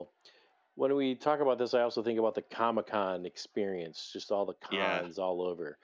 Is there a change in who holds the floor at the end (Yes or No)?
No